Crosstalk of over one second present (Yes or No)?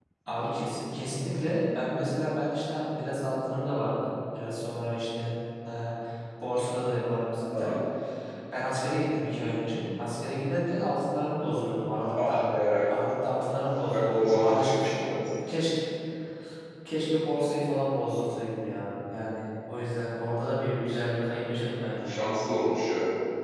Yes